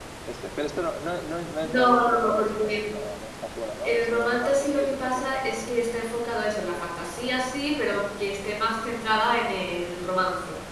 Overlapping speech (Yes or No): Yes